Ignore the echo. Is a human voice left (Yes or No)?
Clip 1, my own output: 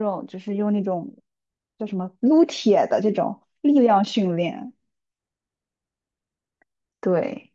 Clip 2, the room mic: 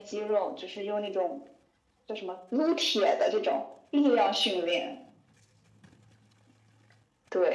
No